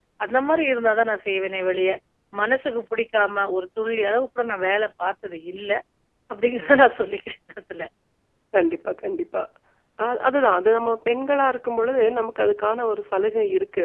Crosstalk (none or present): none